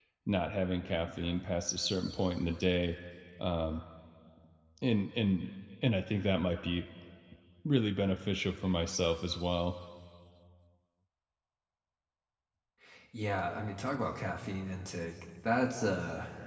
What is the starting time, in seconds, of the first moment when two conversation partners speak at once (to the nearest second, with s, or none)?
none